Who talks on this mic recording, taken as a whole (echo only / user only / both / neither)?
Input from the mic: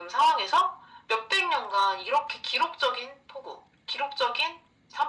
echo only